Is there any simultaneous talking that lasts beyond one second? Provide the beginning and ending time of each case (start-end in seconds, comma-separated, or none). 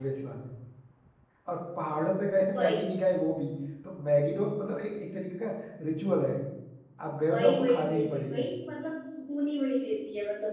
7.3-8.5